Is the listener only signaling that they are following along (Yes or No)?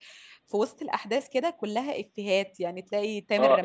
No